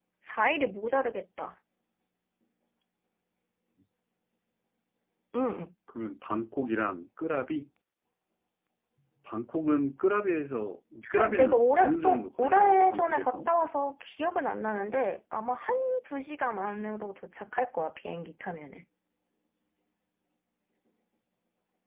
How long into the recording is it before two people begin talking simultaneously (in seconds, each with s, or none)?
11.0 s